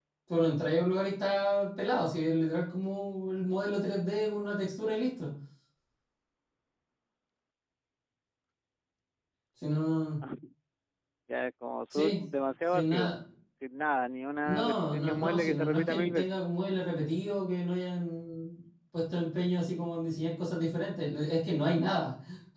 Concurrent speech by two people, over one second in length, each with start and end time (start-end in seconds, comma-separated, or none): 14.4-16.4